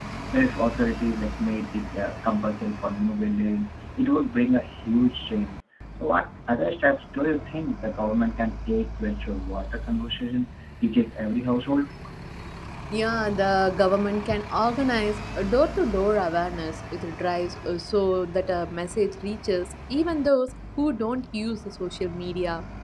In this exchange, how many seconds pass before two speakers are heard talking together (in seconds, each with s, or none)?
none